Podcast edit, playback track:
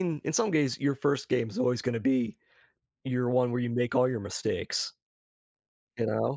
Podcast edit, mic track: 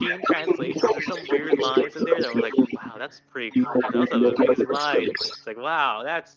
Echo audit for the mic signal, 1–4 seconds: both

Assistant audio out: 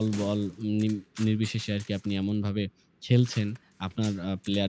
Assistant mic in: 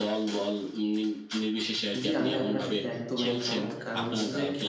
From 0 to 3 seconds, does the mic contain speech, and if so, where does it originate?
both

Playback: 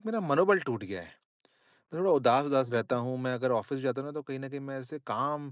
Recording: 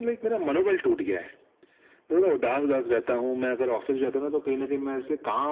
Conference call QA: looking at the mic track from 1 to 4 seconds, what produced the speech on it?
echo only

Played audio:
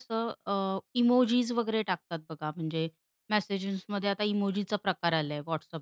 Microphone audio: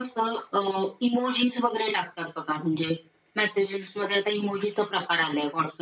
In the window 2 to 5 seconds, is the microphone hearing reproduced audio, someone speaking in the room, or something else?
echo only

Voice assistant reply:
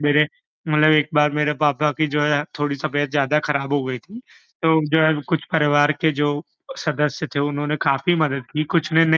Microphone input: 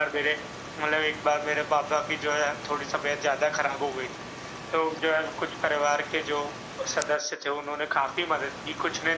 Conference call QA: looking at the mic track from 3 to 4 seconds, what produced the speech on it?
echo only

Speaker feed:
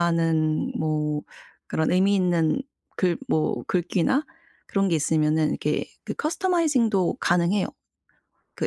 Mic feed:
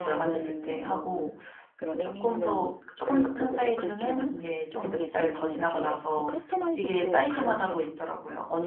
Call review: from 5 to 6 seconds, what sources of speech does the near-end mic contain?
both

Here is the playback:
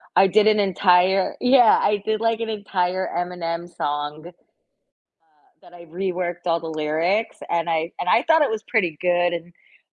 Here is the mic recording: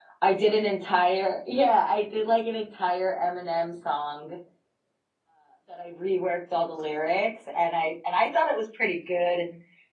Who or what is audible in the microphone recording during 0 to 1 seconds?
echo only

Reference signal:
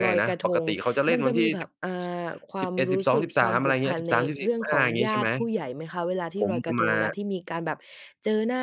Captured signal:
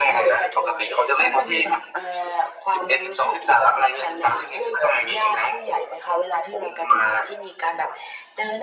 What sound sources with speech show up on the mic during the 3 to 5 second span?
echo only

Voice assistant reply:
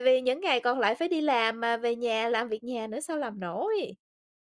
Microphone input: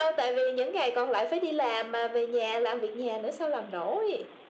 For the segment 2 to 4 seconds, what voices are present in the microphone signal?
echo only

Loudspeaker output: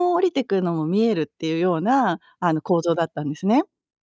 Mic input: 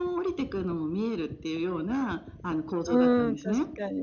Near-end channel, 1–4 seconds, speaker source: both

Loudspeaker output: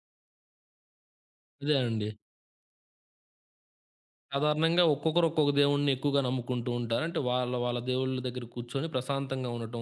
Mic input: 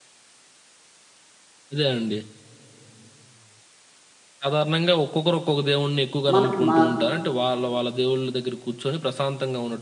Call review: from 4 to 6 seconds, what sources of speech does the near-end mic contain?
echo only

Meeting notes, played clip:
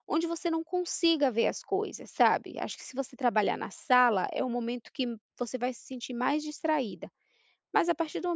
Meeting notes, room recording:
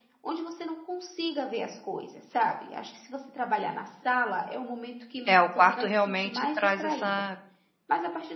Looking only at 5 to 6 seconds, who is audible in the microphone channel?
both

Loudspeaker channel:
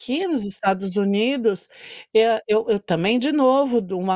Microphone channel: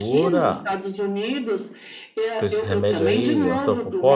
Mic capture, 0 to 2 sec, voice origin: both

